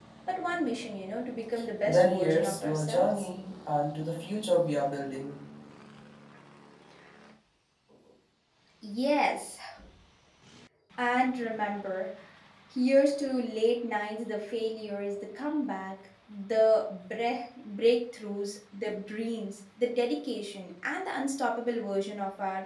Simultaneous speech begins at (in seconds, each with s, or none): 1.9 s